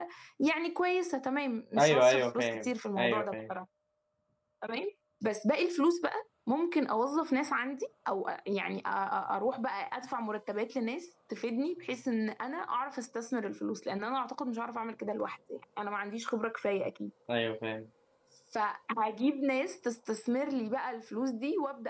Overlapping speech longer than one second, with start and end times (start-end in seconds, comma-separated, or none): 1.8-3.5